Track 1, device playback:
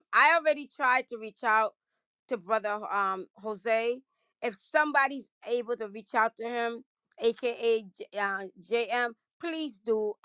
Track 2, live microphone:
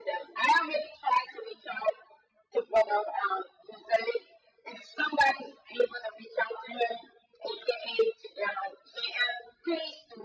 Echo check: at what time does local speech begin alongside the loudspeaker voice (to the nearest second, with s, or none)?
none